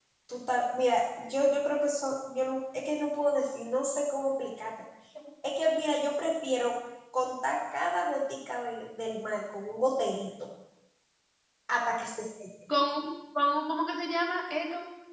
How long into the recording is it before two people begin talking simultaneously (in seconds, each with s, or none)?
none